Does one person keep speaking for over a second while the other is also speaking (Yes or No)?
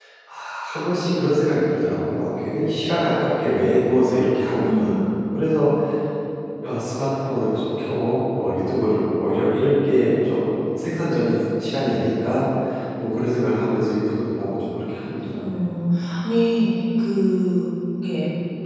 No